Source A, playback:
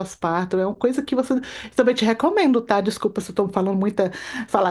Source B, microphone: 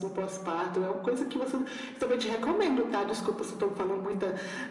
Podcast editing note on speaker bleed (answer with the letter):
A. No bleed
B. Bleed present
B